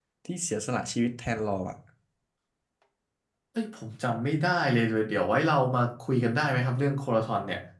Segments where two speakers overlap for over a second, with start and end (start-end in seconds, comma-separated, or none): none